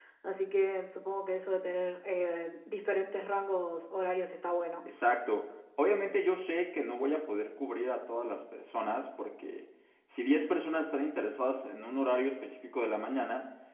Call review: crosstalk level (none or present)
none